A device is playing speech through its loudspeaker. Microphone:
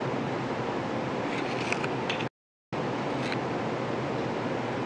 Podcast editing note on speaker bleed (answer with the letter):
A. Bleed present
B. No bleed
B